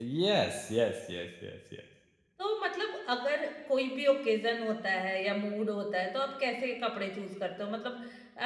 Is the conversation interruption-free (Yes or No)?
Yes